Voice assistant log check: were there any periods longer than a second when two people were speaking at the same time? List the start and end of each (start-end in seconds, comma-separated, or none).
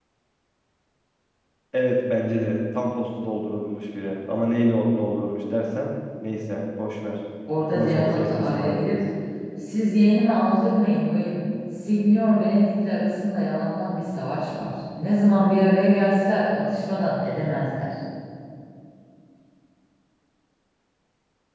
7.7-9.0